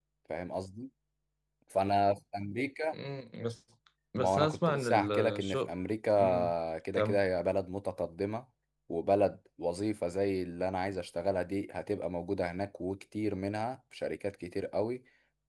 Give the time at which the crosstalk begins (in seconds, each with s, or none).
4.2 s